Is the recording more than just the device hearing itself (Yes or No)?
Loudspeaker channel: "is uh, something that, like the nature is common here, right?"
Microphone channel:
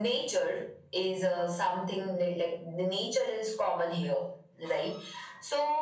No